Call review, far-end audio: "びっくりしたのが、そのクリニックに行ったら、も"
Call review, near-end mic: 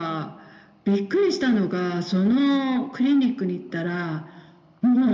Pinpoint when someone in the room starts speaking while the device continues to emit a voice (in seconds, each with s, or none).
none